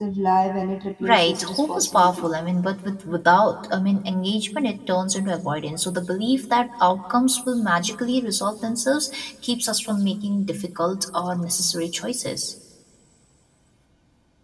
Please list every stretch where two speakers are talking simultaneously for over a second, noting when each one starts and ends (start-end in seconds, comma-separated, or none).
1.0-2.2